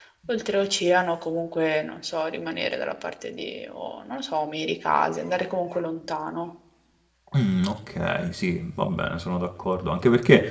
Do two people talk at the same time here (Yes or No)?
No